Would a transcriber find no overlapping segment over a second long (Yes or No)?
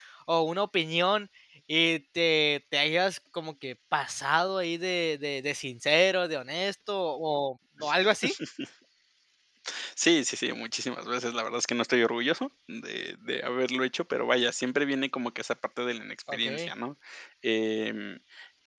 Yes